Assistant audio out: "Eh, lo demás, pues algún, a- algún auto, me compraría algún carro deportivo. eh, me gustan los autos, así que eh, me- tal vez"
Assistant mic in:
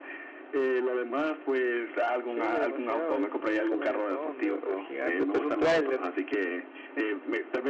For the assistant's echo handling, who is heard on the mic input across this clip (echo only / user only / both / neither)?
both